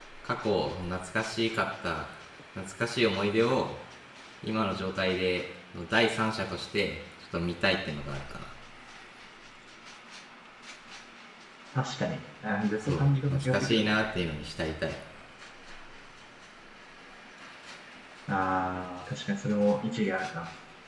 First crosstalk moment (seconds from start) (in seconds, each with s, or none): 12.8 s